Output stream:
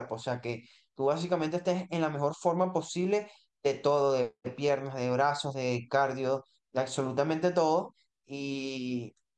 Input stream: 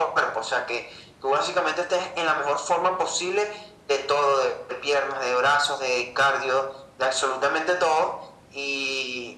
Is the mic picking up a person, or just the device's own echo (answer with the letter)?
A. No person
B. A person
A